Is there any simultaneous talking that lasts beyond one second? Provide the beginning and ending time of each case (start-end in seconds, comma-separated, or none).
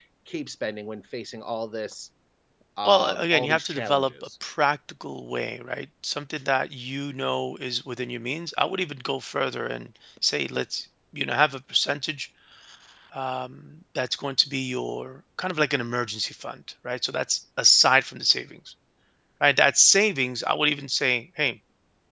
2.8-4.1